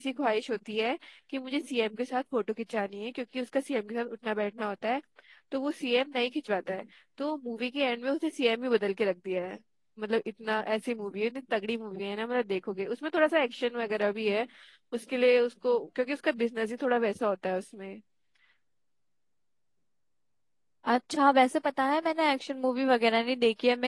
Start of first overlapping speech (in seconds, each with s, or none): none